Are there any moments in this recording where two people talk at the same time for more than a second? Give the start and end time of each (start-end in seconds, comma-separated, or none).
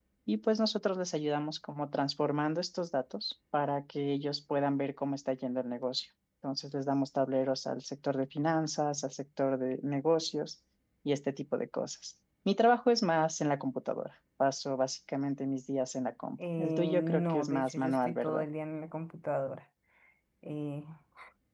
16.6-18.4